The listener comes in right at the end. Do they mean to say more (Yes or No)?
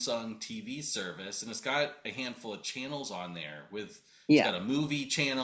No